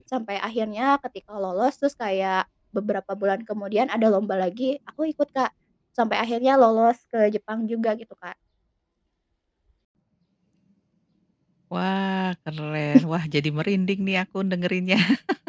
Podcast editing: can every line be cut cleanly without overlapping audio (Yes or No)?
Yes